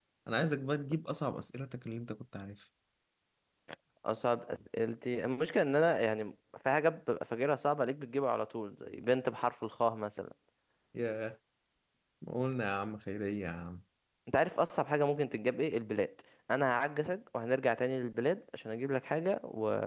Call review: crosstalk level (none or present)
none